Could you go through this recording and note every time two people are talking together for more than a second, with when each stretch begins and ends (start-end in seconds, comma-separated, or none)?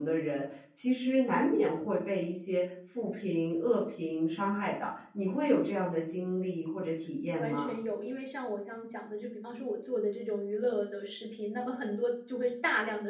none